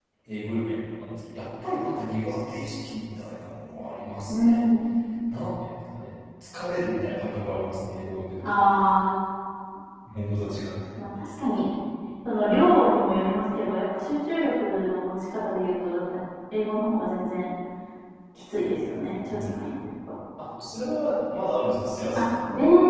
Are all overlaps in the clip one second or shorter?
Yes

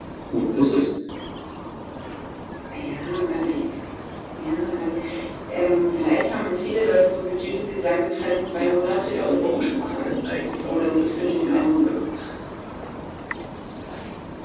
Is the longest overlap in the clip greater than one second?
Yes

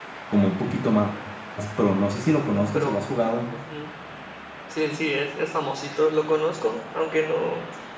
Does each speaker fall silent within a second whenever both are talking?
Yes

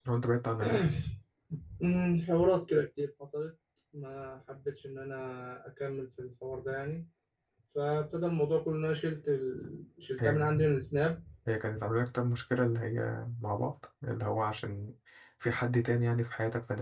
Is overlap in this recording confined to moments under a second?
Yes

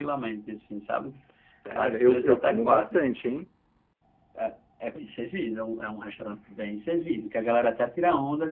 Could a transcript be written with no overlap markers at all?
No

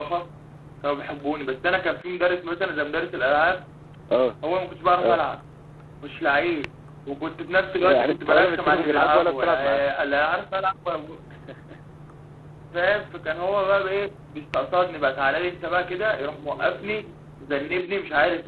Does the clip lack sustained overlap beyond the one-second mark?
No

